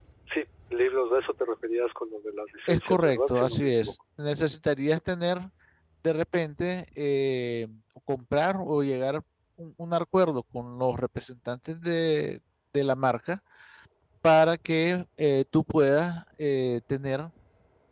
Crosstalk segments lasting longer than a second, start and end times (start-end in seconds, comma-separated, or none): 2.7-3.9